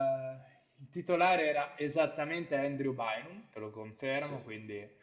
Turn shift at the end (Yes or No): No